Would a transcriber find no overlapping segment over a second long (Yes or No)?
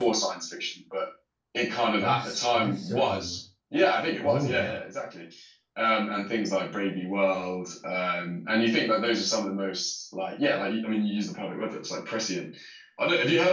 No